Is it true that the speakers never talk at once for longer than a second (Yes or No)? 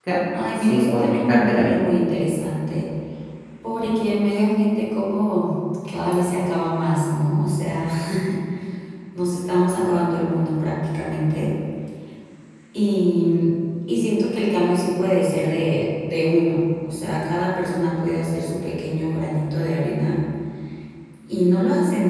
No